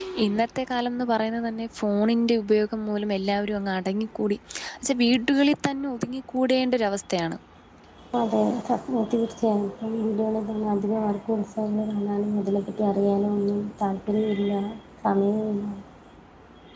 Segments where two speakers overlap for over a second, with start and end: none

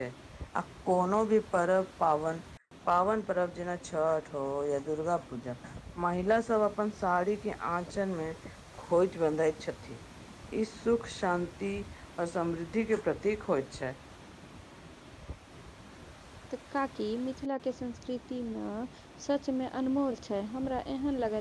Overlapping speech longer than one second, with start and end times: none

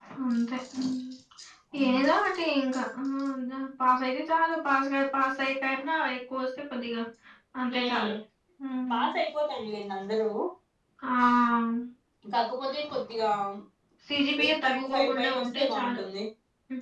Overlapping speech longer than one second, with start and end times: 14.4-16.0

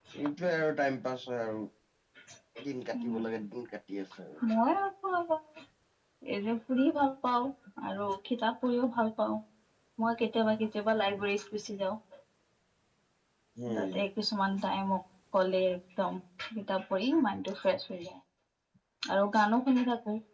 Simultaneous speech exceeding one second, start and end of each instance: none

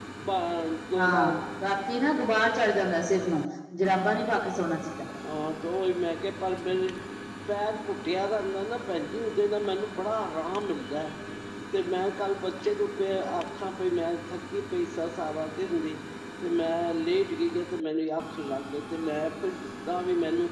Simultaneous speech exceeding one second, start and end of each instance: none

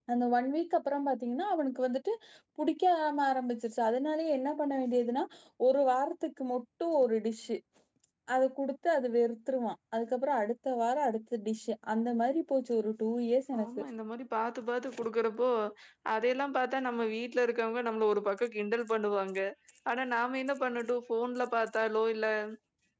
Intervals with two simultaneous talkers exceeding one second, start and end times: none

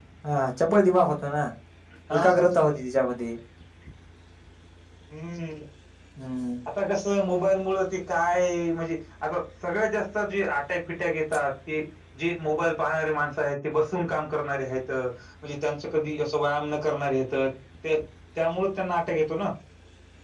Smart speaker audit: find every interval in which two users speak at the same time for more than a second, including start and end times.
none

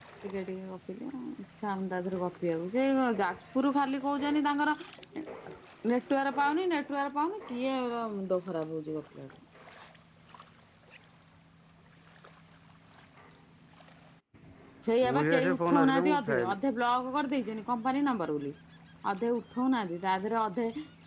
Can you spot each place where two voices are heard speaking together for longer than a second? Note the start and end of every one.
15.1-16.6

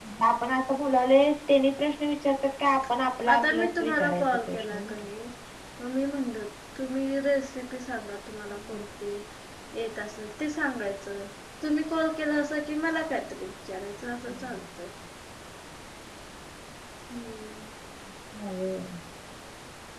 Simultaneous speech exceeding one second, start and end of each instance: 3.3-4.9

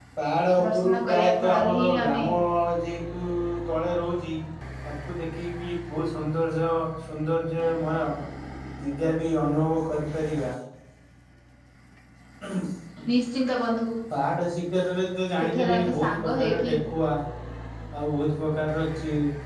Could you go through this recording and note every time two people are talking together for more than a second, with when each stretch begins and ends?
0.6-2.2, 15.4-16.7

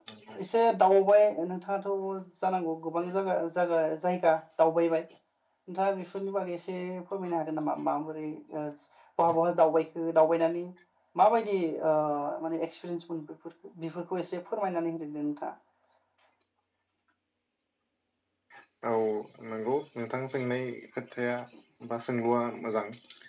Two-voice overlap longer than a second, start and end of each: none

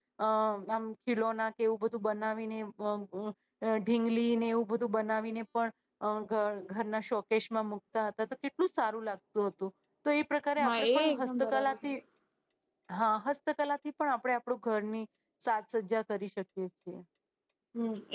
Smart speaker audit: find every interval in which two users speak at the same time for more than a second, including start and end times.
10.6-11.9

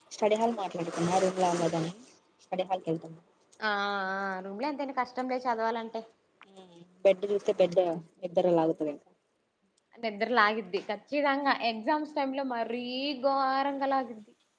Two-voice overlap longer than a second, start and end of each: none

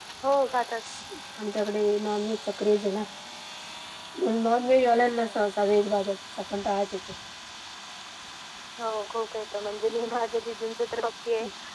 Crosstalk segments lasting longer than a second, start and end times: none

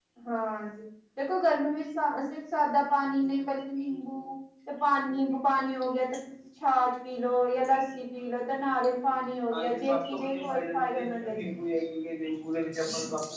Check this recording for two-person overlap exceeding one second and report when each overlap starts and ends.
9.5-11.4

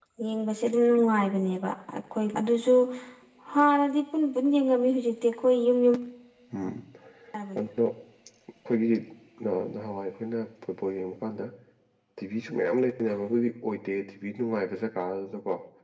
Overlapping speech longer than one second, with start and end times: none

